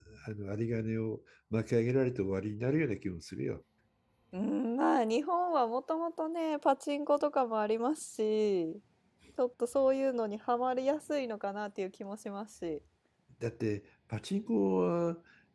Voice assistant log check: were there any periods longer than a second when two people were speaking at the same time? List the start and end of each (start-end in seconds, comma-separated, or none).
none